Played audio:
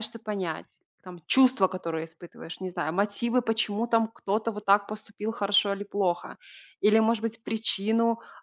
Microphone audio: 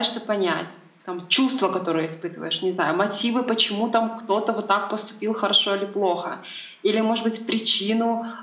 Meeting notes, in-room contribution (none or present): none